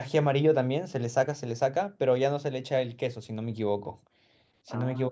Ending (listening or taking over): listening